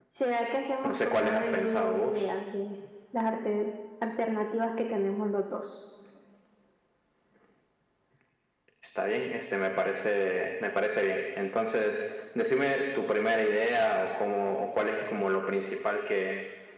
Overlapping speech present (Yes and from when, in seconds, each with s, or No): Yes, from 0.8 s